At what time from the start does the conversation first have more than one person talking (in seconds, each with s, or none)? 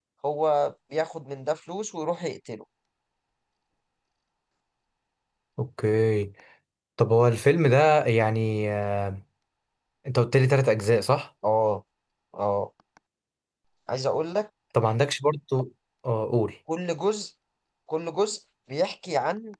none